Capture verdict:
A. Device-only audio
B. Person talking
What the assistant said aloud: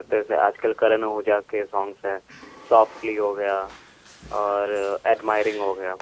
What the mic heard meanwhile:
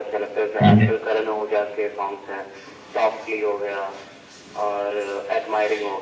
B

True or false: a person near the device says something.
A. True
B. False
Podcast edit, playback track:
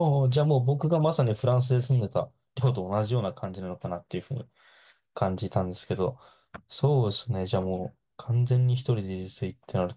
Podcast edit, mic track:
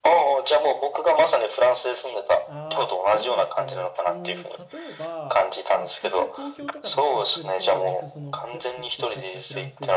A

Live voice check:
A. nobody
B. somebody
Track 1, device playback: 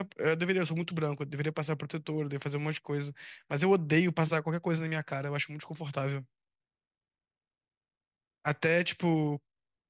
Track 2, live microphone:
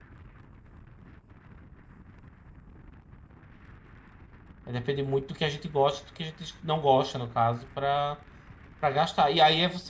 B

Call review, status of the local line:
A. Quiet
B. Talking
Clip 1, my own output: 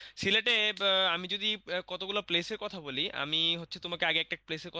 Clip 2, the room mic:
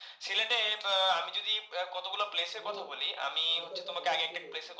B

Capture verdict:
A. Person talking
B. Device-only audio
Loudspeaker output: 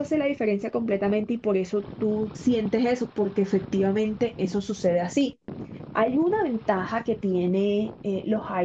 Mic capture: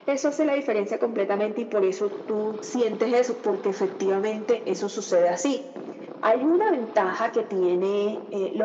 B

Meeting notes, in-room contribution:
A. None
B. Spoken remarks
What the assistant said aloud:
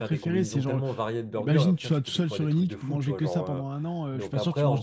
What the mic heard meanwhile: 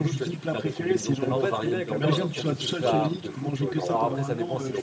B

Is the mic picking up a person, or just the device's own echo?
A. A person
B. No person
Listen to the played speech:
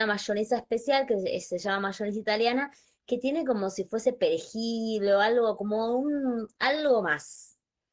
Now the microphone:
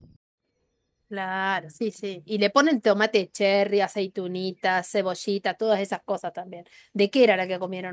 A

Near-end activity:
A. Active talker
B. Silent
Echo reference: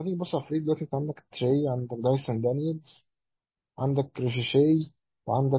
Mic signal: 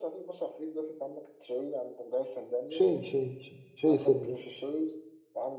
A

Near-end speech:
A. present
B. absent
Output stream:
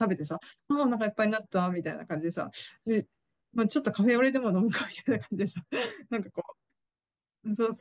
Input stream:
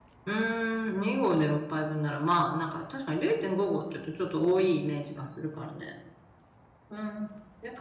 A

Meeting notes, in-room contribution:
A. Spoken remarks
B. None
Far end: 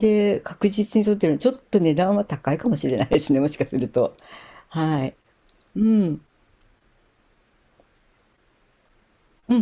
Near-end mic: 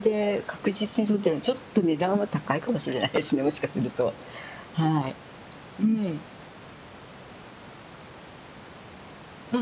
B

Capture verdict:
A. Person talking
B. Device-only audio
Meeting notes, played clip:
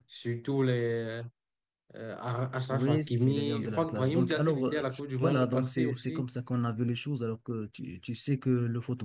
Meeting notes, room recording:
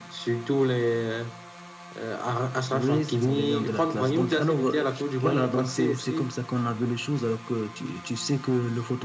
B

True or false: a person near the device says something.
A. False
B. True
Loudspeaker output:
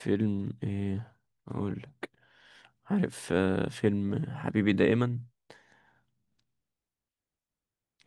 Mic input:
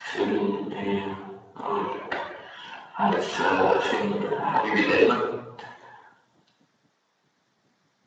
A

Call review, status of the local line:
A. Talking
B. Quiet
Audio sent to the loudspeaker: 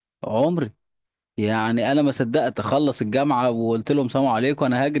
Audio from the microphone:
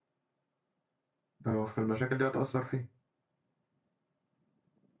A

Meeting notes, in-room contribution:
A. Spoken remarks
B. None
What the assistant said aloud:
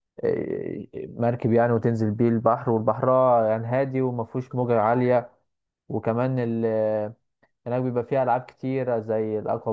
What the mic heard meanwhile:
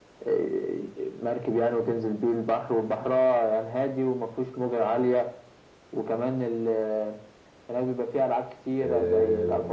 A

